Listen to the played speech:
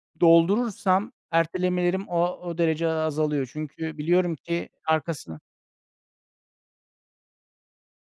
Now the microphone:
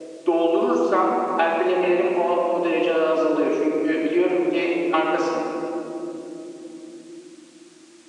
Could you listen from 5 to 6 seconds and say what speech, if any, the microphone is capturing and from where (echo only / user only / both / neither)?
echo only